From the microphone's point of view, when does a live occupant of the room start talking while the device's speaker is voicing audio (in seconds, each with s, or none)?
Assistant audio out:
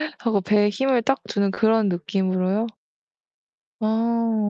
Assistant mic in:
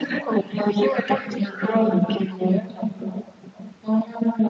none